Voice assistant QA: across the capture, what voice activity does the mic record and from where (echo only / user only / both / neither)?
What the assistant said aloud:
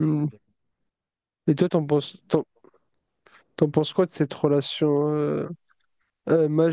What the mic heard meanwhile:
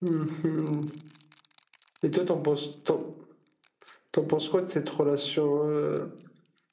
echo only